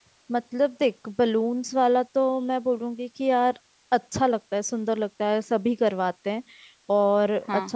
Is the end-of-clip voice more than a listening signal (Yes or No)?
No